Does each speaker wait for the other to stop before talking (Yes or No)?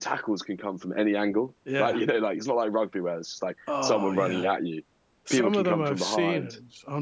No